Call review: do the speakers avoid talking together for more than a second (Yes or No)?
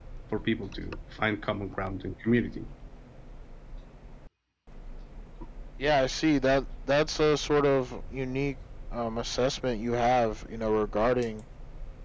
Yes